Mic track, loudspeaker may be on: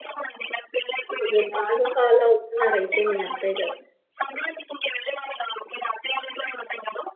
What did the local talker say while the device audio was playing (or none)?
మంచిదే బాగా ఫాలో అవుతున్నారయితే మీ అత్తయ్య గారు.